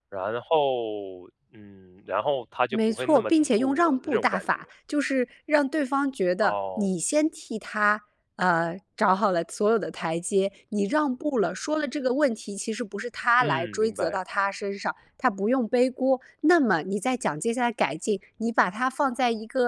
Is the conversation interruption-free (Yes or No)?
No